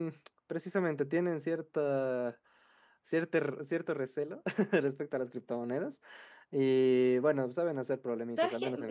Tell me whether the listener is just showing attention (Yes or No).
No